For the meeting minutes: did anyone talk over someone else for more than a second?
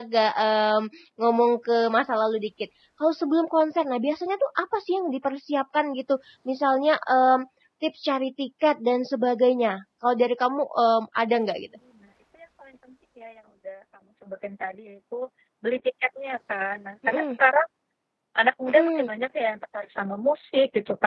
No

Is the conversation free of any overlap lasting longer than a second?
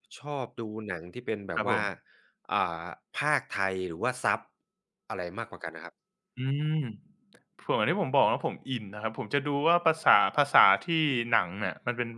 Yes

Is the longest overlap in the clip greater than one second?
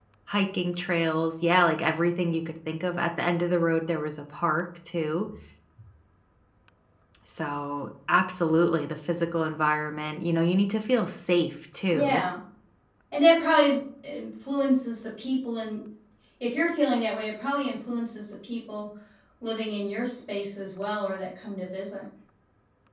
No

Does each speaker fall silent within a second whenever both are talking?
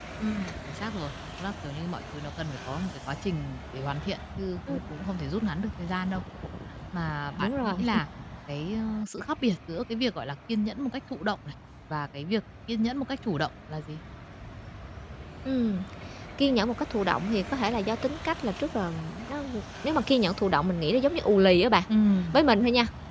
Yes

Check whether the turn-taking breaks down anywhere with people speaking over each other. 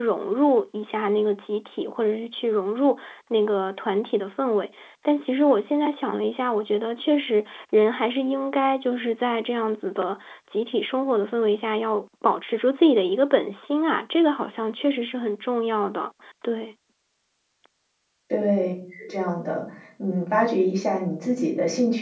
No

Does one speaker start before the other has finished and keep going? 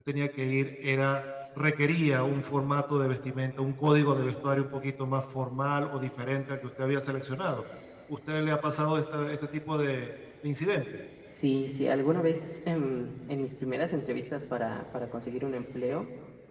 No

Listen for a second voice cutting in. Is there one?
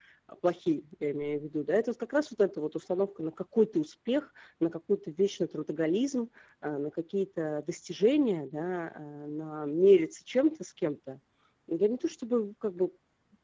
No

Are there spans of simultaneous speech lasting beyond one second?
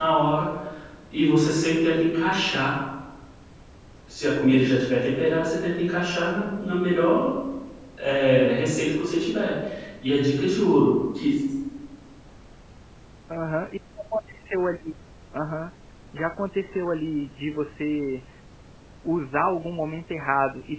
No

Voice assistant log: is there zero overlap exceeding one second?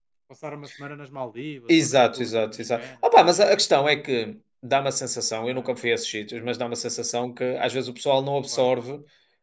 No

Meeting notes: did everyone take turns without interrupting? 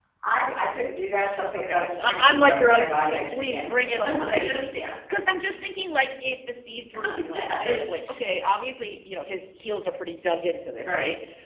No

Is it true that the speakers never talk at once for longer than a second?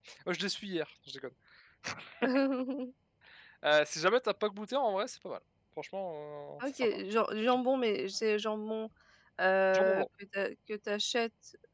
Yes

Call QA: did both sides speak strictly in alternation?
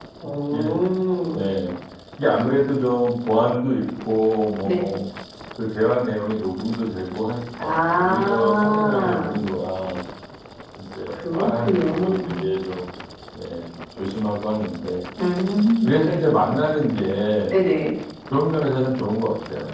No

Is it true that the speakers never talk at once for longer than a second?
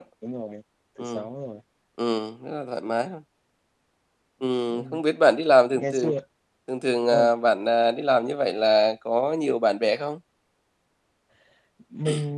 Yes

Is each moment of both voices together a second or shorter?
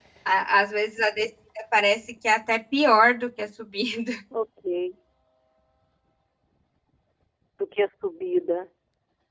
Yes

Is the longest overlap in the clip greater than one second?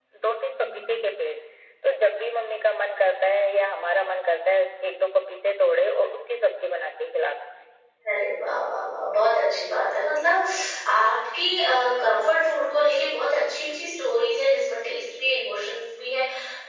No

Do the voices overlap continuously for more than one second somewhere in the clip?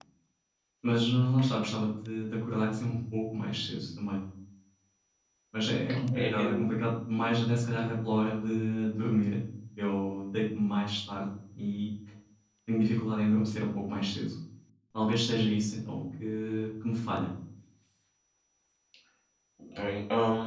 No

